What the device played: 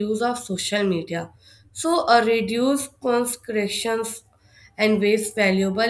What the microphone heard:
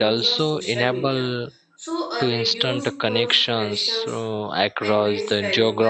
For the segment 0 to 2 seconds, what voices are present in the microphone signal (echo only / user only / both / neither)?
both